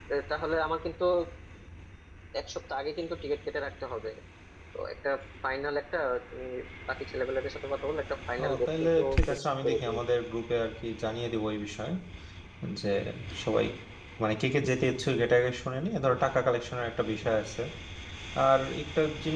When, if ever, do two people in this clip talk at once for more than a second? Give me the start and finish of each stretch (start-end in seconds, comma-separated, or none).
8.4-10.0